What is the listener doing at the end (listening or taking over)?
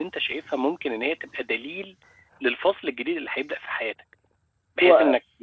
listening